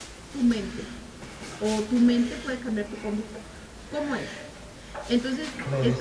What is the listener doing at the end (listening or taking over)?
listening